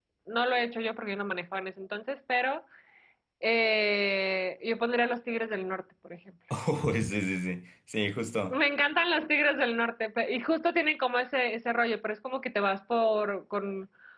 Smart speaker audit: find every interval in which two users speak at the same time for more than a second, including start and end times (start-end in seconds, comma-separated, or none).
none